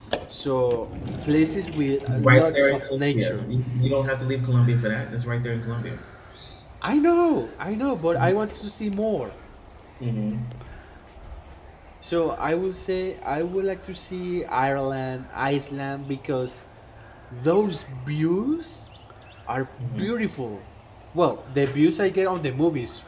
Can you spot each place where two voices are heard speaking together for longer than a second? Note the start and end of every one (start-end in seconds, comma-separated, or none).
2.1-3.5